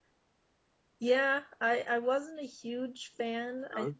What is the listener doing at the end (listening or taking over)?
listening